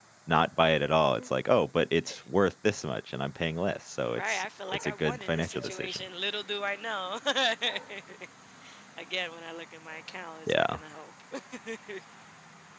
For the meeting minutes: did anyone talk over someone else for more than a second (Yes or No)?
Yes